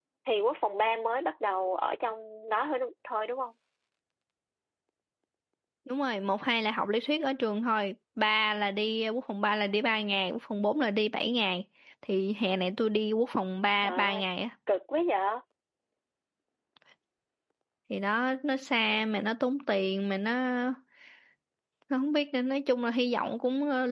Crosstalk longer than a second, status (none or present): none